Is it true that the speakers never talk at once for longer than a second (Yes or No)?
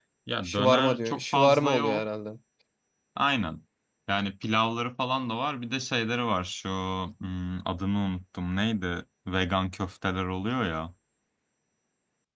No